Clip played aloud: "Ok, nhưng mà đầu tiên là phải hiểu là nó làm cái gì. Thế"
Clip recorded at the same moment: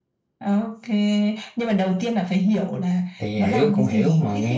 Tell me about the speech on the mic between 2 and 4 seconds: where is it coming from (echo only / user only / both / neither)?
both